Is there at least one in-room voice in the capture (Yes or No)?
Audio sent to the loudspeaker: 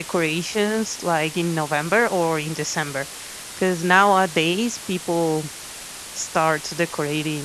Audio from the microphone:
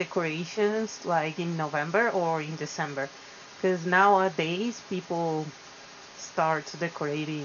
No